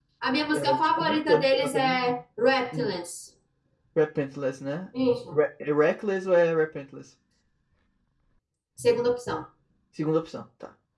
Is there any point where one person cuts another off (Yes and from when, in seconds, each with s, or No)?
Yes, from 0.5 s